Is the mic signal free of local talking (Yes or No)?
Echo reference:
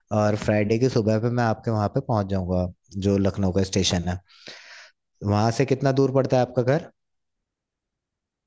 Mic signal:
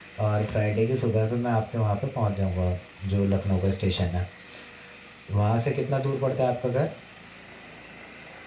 Yes